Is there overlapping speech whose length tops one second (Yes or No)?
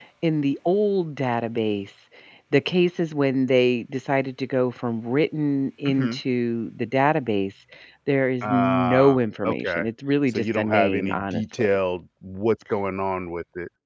Yes